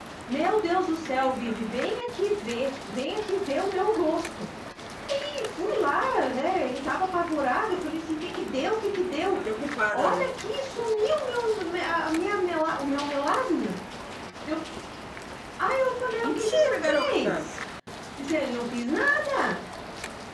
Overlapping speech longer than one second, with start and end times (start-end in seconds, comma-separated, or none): 16.2-17.4